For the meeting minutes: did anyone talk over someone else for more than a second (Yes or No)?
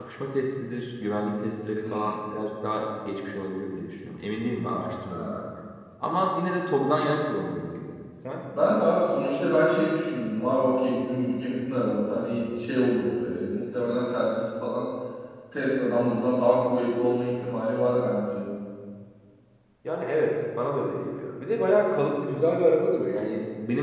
No